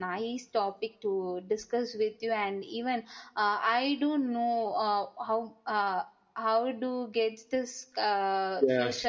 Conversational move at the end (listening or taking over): listening